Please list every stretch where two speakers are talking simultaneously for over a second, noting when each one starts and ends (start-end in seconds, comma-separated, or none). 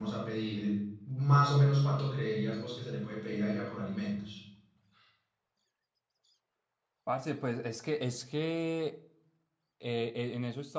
none